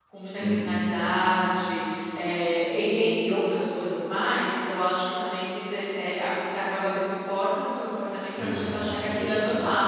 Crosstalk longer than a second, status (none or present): present